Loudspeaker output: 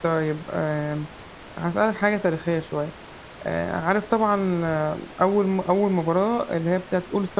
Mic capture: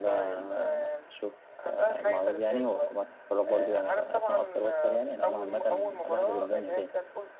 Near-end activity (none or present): present